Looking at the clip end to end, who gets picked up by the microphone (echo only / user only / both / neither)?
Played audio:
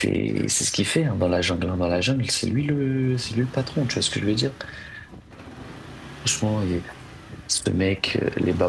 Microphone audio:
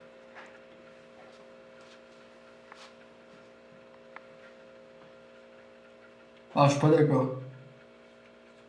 user only